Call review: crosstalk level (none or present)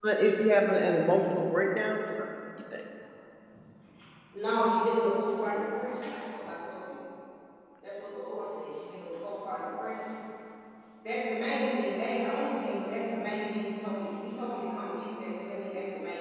none